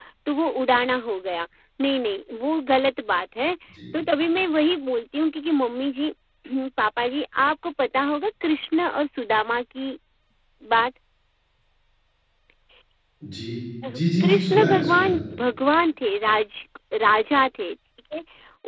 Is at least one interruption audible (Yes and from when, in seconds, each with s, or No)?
Yes, from 13.9 s